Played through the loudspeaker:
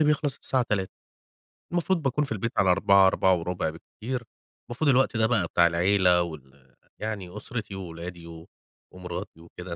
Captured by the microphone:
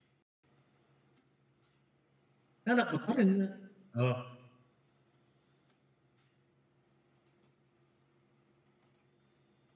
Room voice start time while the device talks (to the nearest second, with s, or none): 3 s